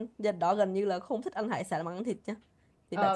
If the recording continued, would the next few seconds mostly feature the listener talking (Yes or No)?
Yes